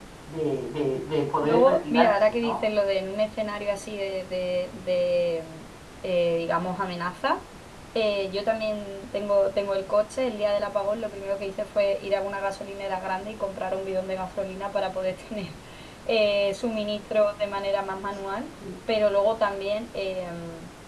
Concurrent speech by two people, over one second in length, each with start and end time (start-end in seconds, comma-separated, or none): 1.4-2.6